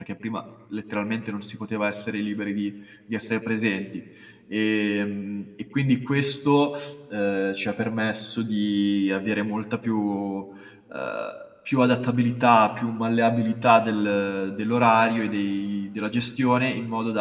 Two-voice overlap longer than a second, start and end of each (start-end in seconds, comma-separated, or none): none